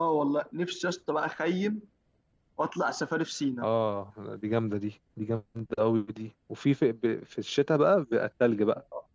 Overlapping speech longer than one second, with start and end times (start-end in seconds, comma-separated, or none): none